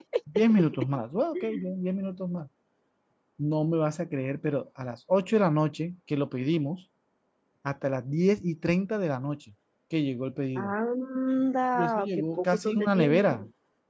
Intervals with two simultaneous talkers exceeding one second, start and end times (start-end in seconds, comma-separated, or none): 11.8-13.3